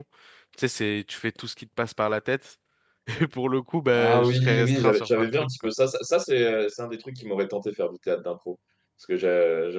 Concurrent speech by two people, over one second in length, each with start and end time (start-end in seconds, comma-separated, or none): 3.9-5.4